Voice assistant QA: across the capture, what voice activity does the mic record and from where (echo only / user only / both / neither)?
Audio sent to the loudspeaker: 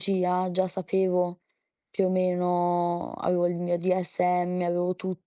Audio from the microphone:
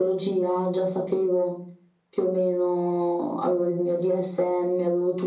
echo only